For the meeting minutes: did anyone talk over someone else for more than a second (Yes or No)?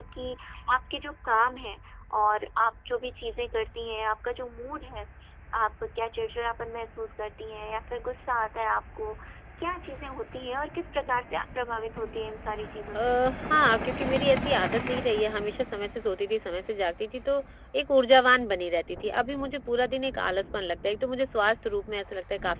No